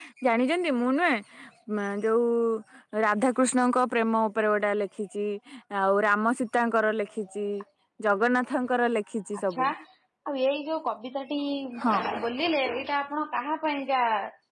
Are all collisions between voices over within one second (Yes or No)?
Yes